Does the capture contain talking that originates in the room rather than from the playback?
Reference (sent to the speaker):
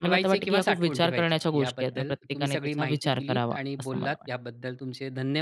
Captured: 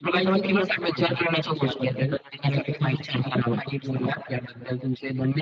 No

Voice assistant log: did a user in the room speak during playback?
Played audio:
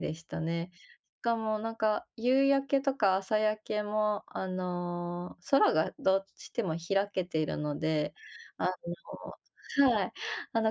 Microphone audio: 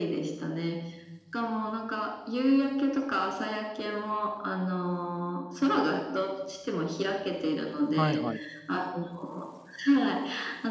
Yes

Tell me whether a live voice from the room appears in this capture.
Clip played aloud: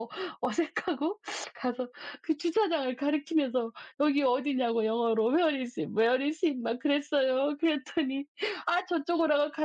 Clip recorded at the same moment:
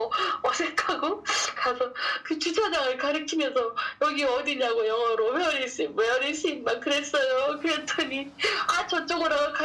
No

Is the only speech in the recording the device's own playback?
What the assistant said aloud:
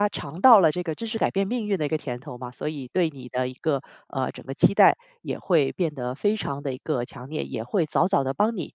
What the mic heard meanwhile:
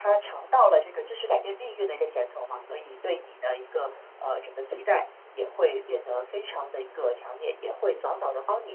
Yes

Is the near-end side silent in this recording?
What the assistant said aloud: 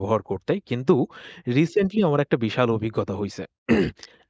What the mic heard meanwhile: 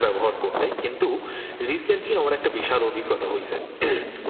Yes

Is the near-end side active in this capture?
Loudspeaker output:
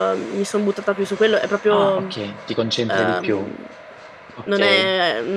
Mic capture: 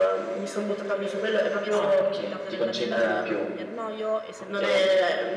Yes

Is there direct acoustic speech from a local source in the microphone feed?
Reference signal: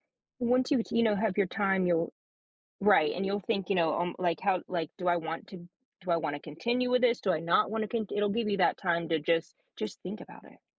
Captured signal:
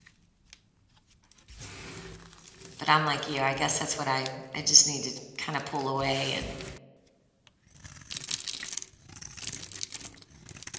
Yes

